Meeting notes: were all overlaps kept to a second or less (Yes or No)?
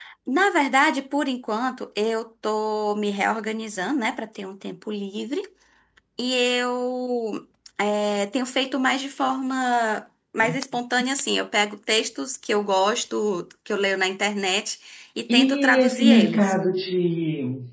No